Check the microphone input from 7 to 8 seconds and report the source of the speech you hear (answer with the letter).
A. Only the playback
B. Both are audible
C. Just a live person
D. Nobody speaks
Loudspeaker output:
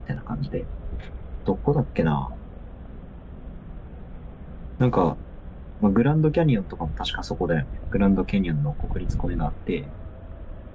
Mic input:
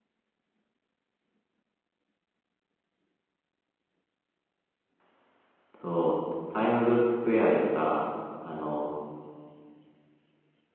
C